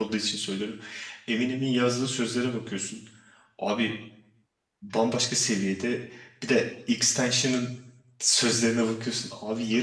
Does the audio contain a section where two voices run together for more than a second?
No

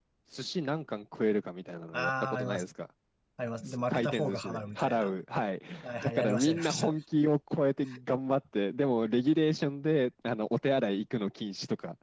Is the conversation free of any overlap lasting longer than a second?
No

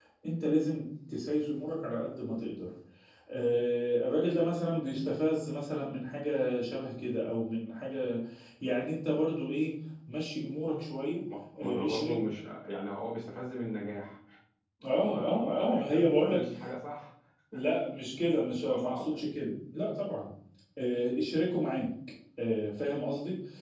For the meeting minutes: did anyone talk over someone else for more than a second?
Yes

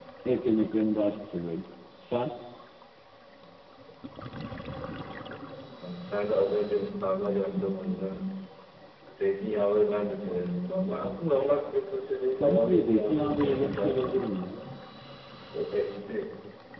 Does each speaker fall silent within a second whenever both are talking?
No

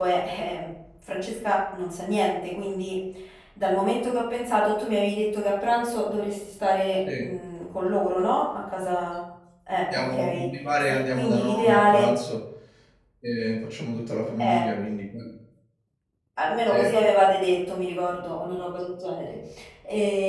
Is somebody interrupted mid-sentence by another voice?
Yes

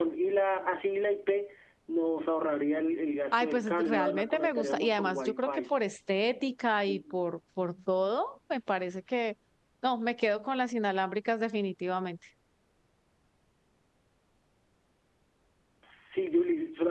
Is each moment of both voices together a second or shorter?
No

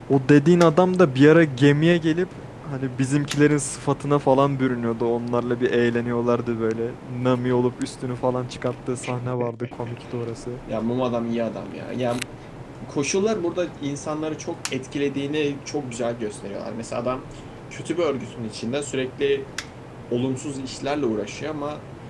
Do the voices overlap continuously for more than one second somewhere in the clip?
No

